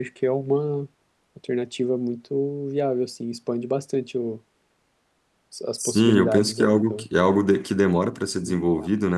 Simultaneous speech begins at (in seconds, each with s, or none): 5.8 s